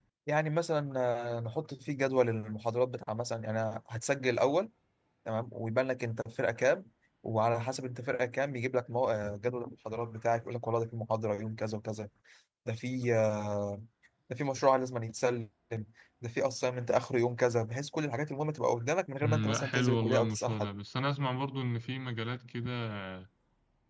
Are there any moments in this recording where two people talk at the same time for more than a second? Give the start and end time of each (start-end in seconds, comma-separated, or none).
19.2-20.7